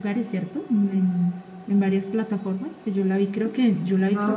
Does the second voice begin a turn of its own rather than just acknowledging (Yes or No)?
Yes